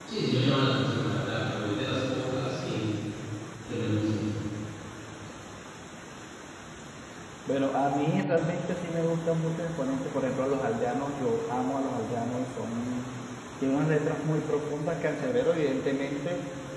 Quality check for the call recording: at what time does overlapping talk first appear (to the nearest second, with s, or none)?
none